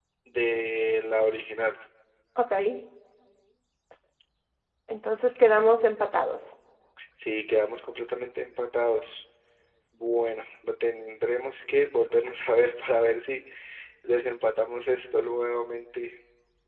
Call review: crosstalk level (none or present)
none